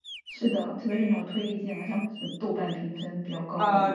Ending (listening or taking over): taking over